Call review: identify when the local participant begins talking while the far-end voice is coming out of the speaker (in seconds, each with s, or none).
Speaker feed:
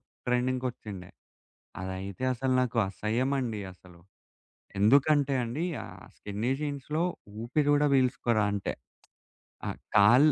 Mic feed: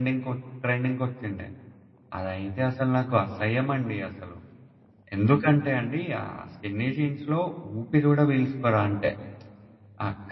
none